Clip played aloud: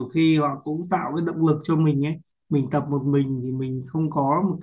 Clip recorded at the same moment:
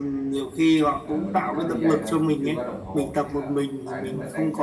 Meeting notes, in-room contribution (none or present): present